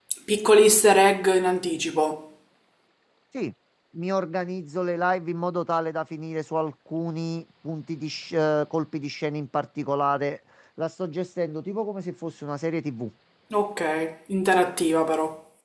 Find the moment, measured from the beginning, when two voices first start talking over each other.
none

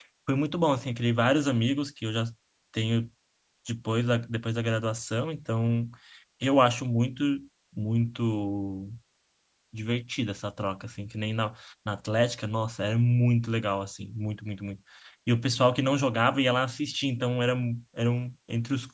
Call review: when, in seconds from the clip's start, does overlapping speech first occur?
none

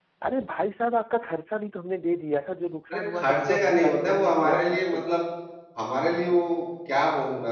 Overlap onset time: 2.9 s

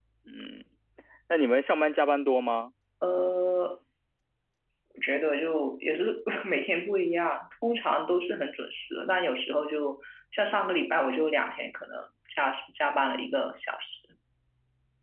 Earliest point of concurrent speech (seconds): none

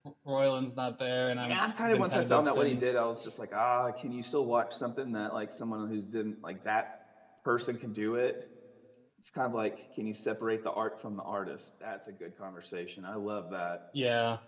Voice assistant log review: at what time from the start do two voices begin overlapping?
1.4 s

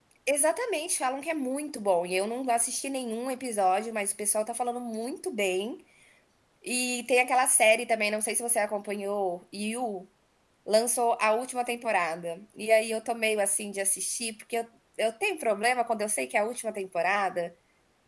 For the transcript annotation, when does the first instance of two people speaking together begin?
none

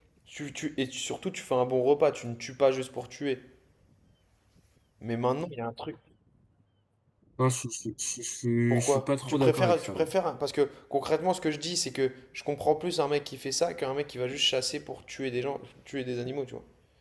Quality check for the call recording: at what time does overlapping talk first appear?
8.7 s

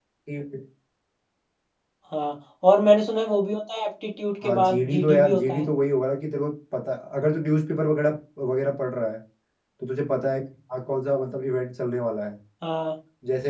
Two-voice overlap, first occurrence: 4.4 s

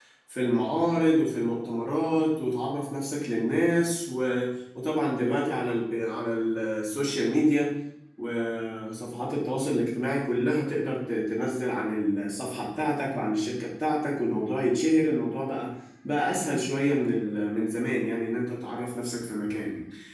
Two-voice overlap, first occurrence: none

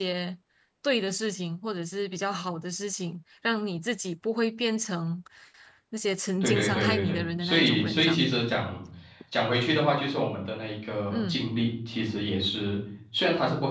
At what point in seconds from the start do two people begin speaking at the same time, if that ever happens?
6.4 s

